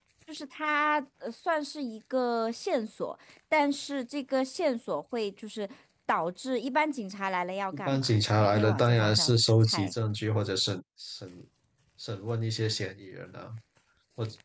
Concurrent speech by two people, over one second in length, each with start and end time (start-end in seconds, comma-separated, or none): 7.7-9.9